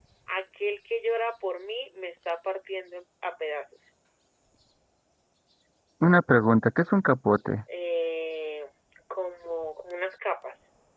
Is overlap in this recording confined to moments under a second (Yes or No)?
Yes